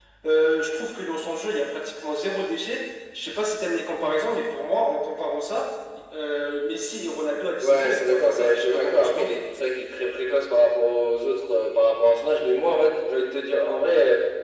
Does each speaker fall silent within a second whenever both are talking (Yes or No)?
No